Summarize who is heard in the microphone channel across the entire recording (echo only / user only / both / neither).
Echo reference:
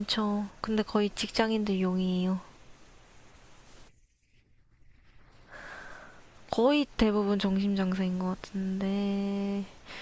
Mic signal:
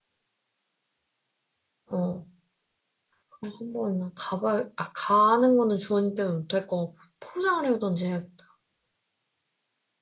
user only